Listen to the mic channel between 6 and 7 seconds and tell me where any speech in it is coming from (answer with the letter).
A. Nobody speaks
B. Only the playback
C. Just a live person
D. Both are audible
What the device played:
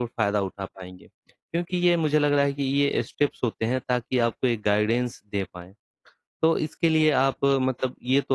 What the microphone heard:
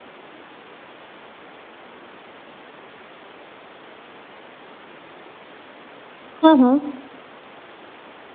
C